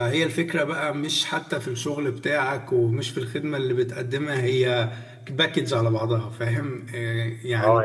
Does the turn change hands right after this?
Yes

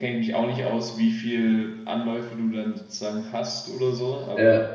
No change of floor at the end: Yes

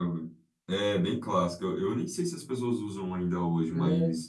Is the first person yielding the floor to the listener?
No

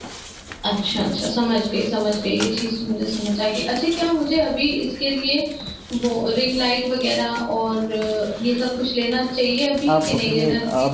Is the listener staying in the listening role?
No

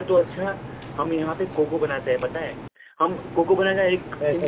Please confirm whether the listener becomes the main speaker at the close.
No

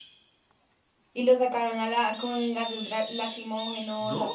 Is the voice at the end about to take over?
Yes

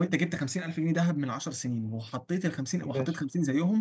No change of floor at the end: Yes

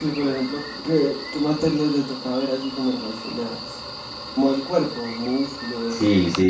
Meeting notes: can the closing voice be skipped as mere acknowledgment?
No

